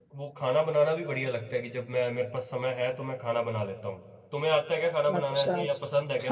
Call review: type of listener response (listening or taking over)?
taking over